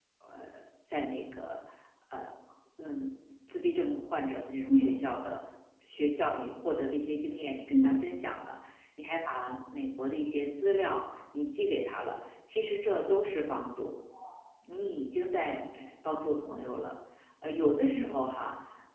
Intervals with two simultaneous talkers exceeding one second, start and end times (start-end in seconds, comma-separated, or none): none